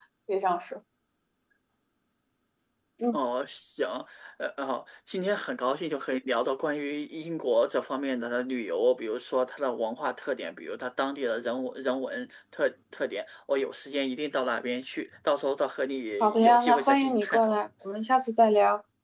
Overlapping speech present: Yes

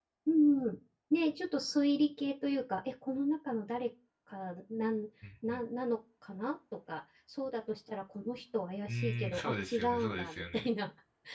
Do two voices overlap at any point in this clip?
Yes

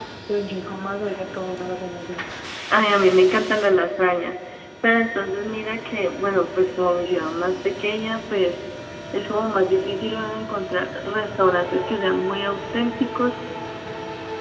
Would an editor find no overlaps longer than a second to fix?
Yes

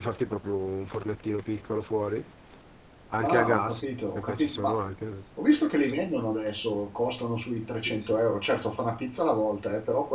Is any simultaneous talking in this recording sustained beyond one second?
Yes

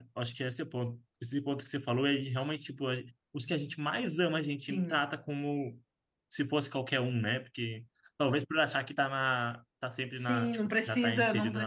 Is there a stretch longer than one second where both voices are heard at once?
Yes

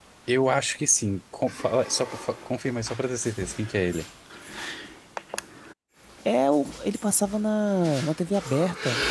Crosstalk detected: No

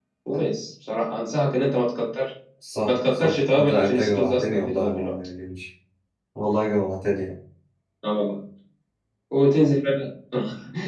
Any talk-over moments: Yes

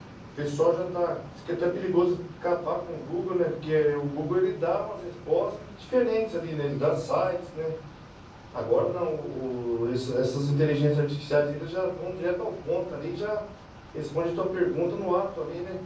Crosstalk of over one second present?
No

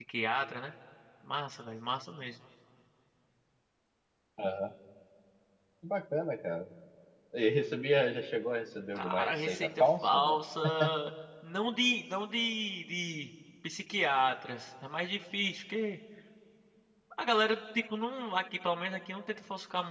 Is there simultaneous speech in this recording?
Yes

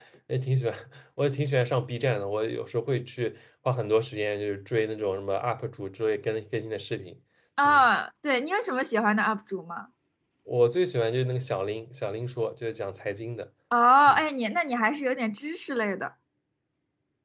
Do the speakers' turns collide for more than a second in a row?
No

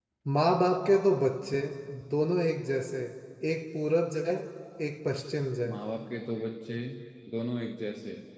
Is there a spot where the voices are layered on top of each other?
No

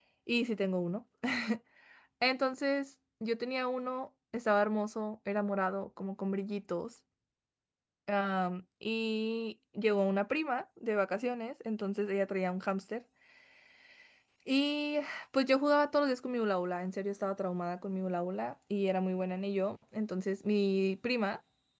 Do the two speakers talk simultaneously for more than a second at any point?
No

